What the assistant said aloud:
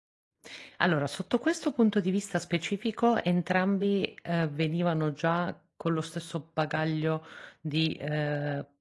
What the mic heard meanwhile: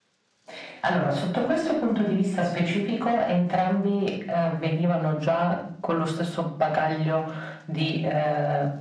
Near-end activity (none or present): none